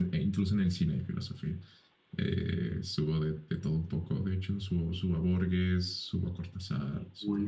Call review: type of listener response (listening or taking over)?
taking over